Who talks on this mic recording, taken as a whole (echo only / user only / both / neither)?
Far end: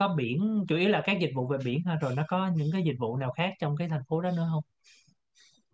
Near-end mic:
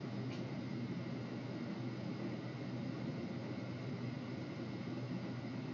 neither